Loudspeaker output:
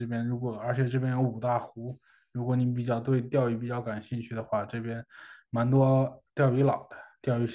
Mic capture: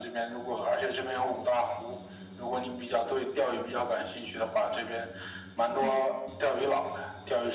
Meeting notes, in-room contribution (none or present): present